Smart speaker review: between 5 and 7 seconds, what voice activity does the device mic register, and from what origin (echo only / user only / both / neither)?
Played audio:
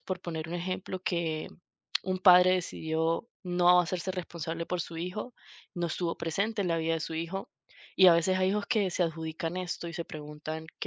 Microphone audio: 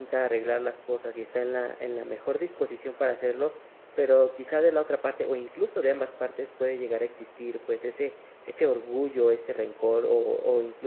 user only